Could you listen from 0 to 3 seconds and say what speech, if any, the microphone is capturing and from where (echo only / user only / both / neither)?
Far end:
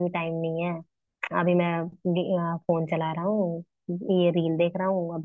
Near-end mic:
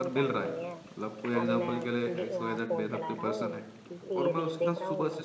both